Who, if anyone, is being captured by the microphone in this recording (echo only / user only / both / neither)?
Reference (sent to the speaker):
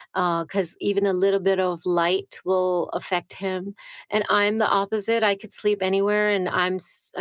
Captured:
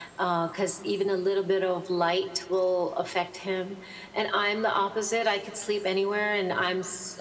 echo only